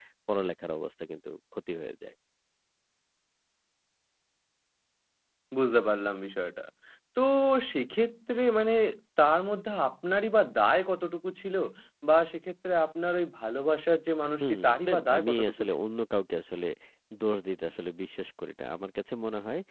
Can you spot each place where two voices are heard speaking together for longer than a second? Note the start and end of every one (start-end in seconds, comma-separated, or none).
14.4-15.7